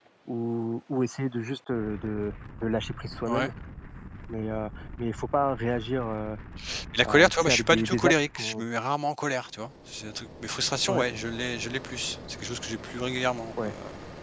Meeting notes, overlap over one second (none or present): present